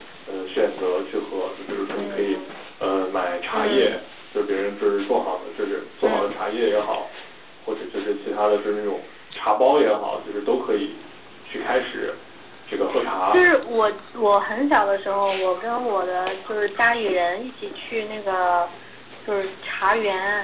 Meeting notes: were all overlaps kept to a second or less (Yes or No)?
Yes